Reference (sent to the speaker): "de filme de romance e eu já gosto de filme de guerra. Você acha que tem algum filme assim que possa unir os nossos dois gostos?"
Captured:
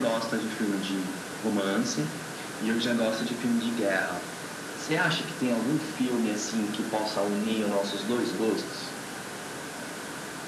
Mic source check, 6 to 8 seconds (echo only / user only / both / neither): echo only